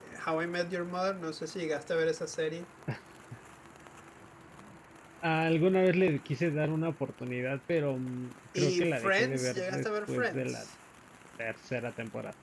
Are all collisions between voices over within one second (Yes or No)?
No